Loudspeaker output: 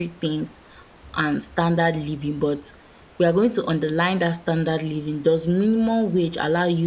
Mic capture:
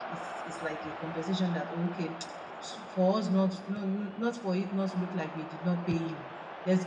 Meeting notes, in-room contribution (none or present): present